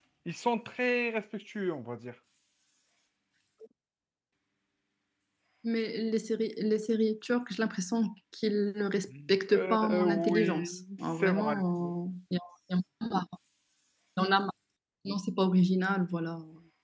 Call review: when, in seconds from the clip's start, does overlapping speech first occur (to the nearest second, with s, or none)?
9 s